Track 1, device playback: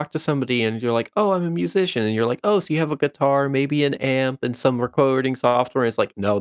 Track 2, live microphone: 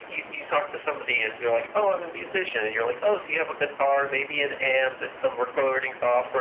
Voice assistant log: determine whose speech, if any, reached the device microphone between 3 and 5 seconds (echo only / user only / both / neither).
echo only